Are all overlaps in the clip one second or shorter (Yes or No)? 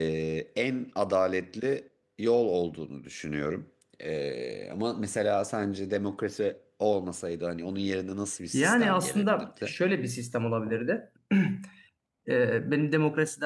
No